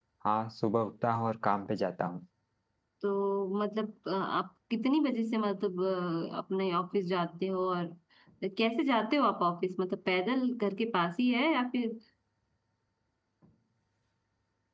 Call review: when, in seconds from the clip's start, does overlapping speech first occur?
none

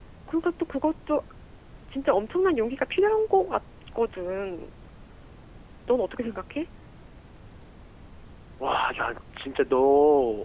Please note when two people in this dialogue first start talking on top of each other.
none

